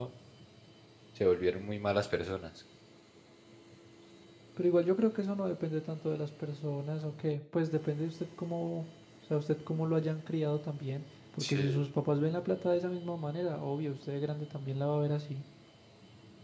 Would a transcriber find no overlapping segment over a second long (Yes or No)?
Yes